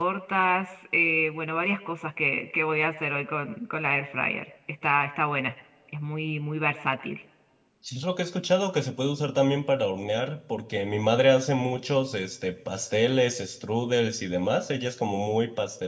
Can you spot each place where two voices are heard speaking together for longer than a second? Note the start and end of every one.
none

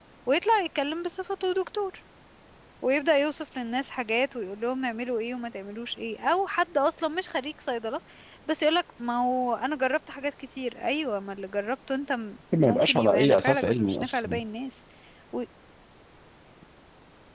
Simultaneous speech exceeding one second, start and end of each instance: 12.6-14.4

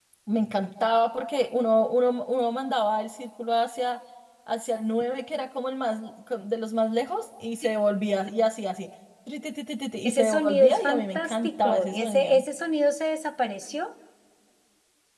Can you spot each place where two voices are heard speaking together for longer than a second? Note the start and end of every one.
10.1-12.4

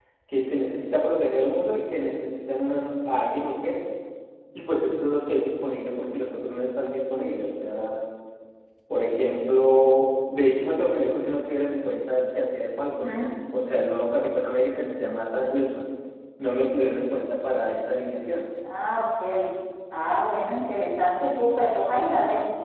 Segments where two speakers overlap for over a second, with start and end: none

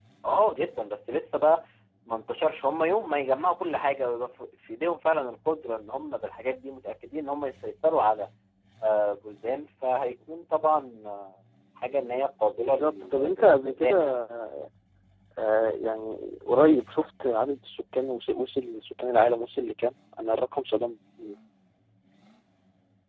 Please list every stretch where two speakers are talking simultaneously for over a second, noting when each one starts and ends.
12.6-14.2

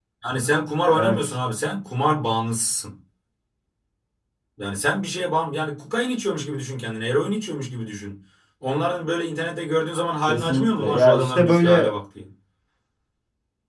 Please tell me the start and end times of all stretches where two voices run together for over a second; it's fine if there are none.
10.3-11.9

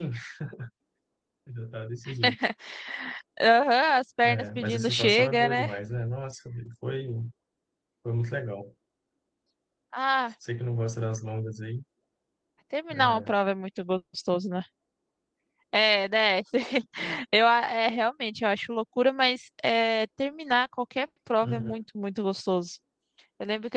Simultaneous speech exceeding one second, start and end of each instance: 4.2-5.7

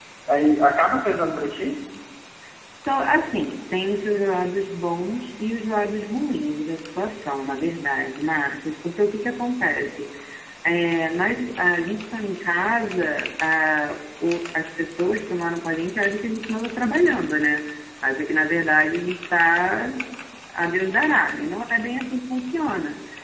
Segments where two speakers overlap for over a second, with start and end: none

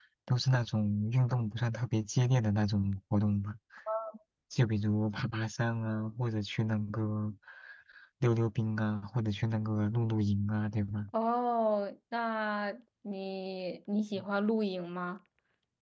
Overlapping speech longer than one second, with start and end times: none

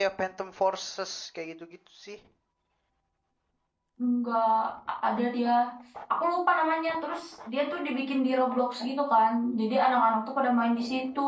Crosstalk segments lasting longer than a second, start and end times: none

